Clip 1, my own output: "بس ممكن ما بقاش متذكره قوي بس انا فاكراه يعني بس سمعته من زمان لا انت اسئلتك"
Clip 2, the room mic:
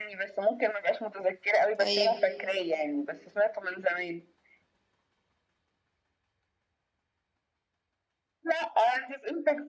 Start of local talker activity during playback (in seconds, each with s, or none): 1.8 s